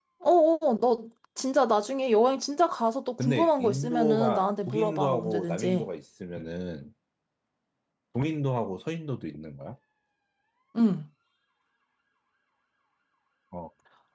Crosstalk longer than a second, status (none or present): present